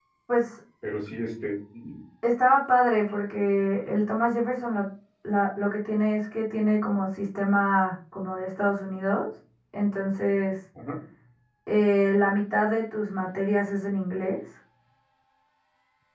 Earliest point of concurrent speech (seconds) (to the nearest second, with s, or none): none